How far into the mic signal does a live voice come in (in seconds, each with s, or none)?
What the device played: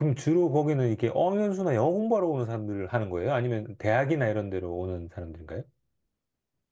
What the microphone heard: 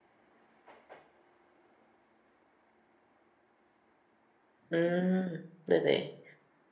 4.7 s